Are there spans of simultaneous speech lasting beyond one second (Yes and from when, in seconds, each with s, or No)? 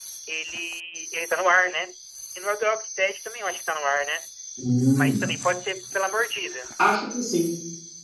No